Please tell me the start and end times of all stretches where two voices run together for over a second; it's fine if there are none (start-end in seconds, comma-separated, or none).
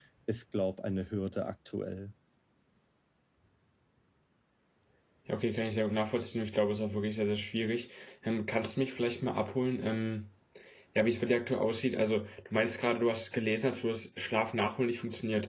none